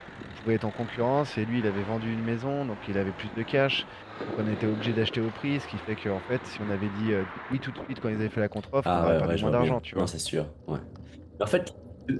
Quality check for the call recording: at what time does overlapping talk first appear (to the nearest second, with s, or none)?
9 s